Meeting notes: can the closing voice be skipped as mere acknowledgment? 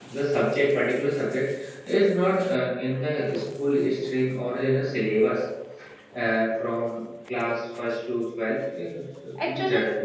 No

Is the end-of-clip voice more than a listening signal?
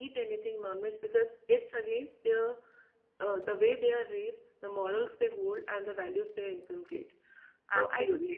Yes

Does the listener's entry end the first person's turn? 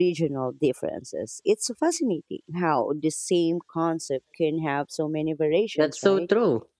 Yes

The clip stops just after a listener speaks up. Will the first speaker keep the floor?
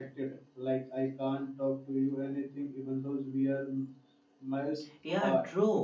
No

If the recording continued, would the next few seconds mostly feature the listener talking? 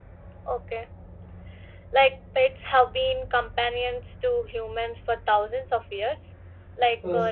No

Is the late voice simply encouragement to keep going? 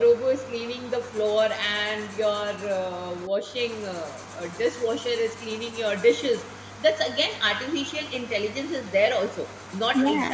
Yes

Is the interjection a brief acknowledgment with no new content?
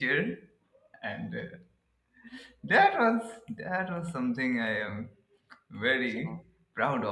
Yes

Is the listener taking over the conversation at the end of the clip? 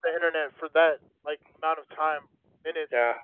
Yes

